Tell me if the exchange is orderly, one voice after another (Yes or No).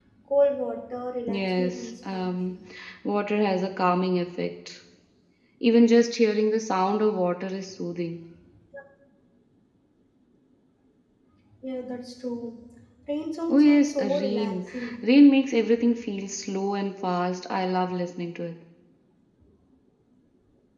No